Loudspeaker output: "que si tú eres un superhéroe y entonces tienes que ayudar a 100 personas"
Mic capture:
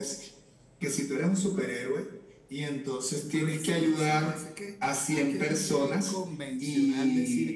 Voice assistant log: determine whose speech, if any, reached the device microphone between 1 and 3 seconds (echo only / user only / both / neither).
echo only